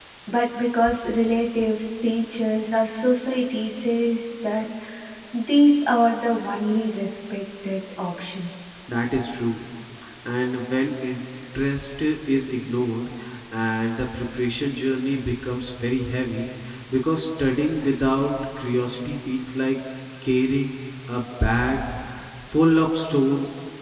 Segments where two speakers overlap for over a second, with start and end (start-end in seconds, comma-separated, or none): none